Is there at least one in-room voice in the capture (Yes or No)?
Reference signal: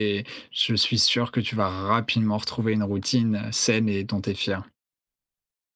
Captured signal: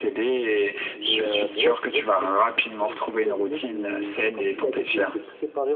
Yes